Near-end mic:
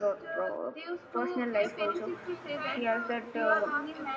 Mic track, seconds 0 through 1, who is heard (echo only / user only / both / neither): echo only